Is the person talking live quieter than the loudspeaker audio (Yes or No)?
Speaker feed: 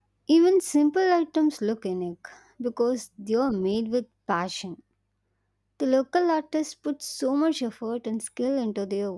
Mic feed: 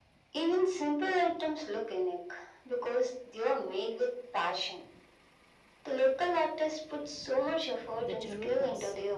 Yes